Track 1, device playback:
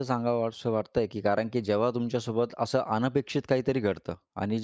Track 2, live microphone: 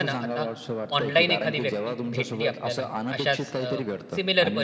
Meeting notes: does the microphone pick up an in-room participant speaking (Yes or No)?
Yes